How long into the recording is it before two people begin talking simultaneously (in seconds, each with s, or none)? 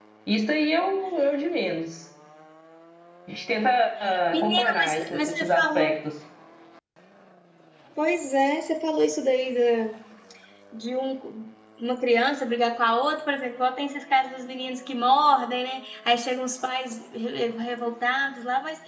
4.3 s